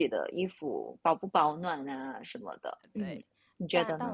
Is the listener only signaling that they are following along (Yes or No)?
No